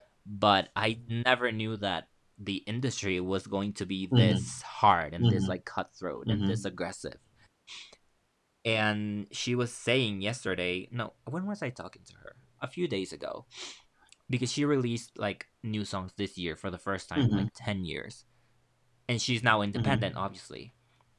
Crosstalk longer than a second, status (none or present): none